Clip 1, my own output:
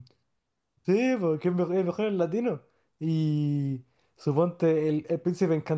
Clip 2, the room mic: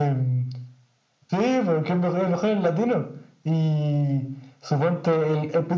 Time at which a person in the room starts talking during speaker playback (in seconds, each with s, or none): none